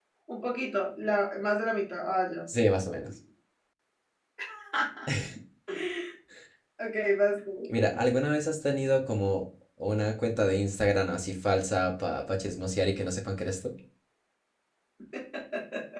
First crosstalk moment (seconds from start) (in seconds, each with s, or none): none